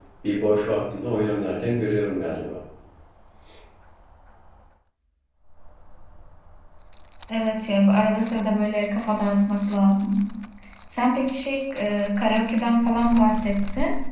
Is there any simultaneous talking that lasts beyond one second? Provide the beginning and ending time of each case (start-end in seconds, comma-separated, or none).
none